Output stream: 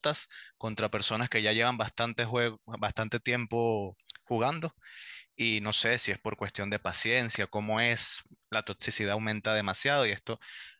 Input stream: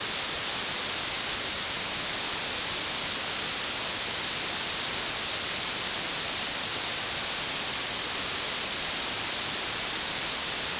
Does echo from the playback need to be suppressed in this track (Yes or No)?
No